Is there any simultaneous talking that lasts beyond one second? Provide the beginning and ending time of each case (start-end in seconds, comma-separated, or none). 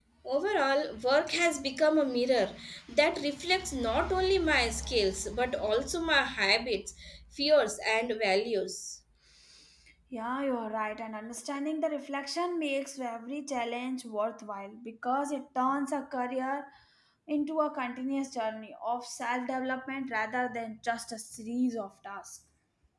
none